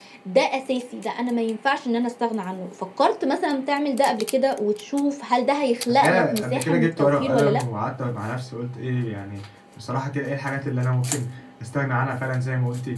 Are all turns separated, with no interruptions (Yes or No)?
No